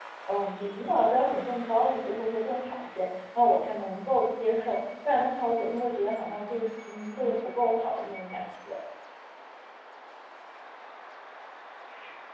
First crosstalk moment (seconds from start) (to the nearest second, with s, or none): none